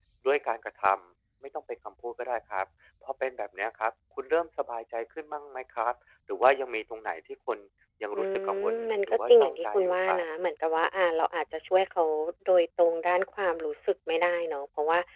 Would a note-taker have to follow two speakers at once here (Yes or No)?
Yes